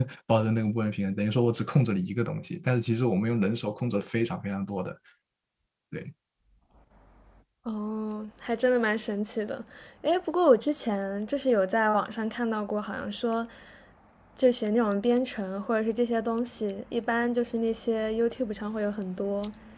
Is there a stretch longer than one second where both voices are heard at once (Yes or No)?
No